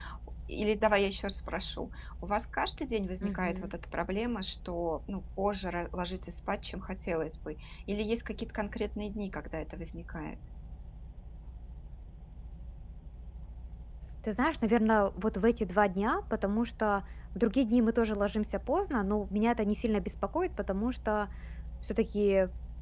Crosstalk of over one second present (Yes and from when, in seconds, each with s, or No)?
No